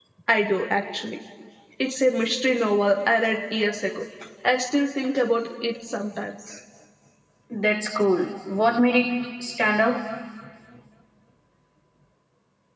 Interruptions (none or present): none